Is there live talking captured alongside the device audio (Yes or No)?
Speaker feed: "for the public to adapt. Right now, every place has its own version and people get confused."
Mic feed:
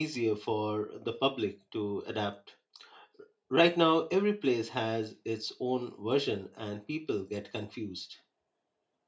No